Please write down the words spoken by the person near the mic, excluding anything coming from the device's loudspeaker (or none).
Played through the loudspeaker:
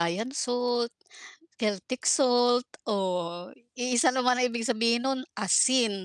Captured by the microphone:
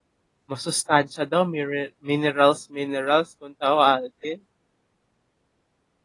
masustansya daw mire minerals, minerals kung tawagin.